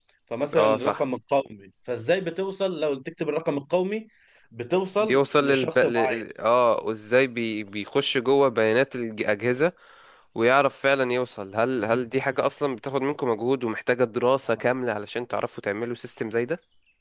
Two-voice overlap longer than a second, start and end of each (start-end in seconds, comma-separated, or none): 5.0-6.2